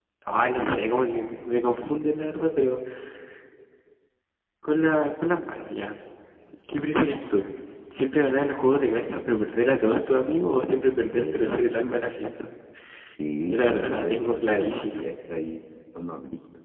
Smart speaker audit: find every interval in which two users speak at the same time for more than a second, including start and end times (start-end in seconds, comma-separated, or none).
13.5-15.1